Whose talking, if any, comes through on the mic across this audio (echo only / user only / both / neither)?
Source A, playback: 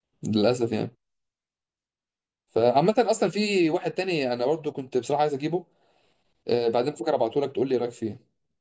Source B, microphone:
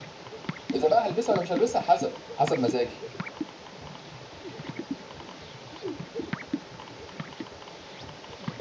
user only